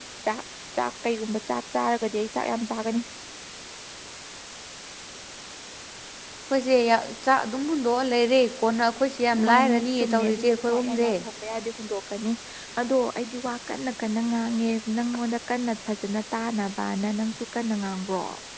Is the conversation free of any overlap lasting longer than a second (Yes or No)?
No